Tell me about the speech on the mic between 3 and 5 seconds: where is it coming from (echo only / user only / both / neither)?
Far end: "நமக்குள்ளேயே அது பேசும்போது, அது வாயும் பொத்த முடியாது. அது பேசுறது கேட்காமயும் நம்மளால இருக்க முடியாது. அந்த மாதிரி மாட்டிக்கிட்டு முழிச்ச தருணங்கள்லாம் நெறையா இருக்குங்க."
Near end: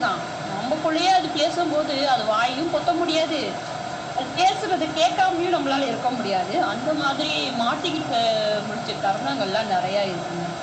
echo only